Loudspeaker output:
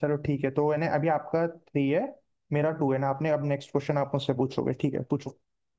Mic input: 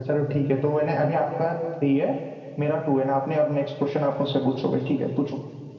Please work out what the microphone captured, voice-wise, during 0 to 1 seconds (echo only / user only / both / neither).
echo only